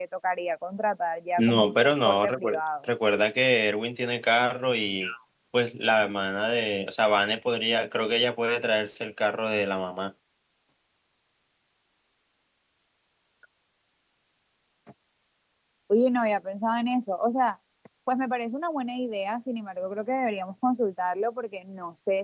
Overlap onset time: 1 s

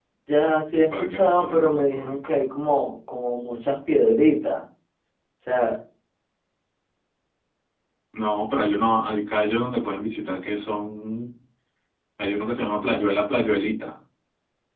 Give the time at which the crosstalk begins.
1 s

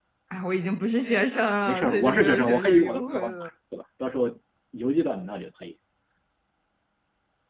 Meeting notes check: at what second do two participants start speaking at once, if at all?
2 s

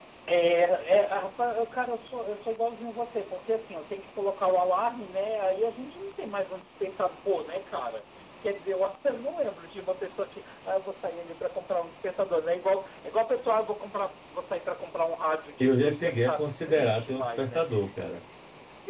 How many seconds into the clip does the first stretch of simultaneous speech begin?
16 s

